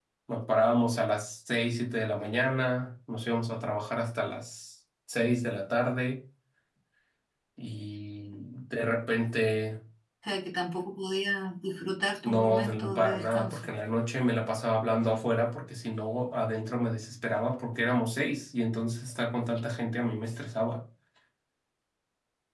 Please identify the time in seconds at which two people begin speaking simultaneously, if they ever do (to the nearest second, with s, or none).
12 s